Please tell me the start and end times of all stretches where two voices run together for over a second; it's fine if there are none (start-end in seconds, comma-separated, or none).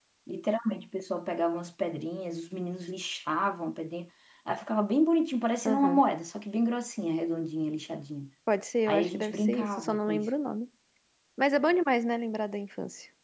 8.9-10.3